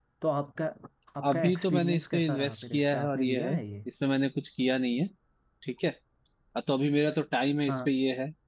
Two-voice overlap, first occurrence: 1 s

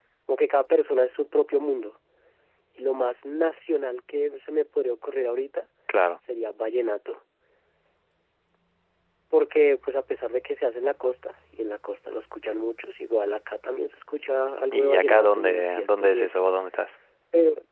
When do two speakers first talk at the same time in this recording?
15 s

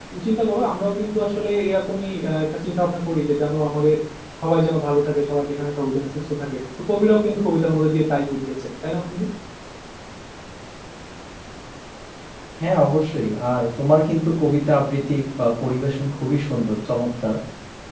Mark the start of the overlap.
none

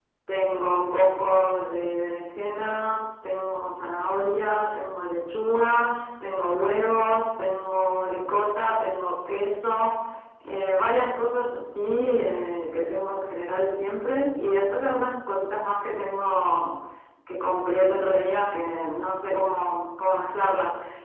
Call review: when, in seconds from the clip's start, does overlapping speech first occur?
none

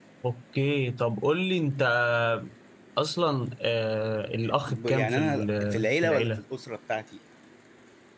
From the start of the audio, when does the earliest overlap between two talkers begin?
5 s

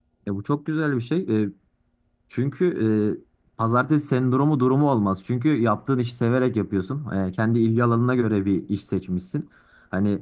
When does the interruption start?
none

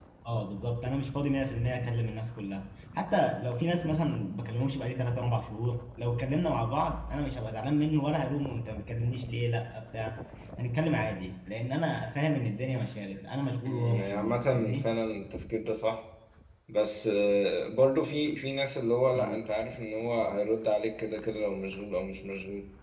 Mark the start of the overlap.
14 s

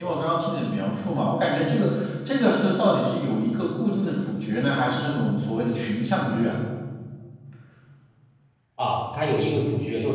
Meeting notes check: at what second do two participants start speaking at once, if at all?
none

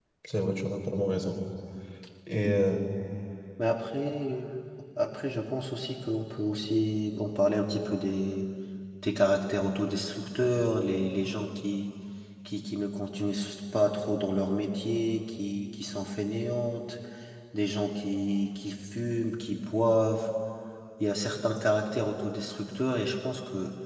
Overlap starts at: none

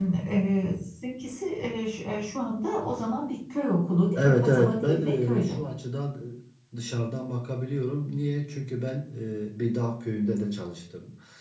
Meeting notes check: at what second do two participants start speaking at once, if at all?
4 s

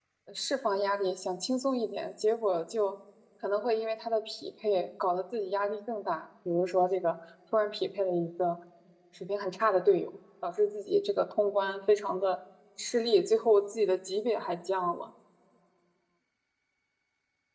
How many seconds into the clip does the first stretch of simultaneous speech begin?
none

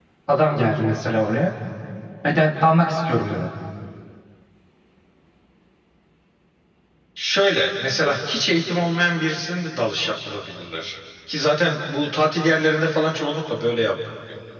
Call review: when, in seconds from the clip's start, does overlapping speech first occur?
none

